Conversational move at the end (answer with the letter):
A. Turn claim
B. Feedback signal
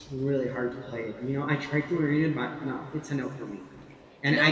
A